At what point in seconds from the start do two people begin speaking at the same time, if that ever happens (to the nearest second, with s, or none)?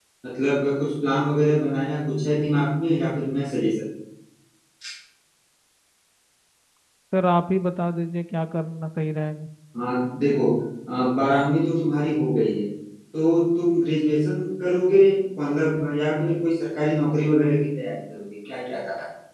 none